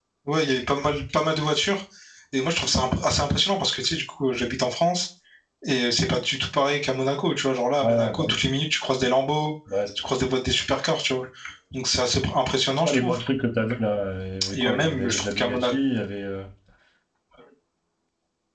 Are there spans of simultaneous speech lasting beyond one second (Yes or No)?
Yes